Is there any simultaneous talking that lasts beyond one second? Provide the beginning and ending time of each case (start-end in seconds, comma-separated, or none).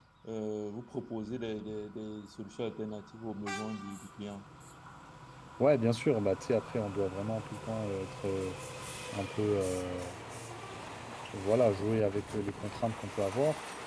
none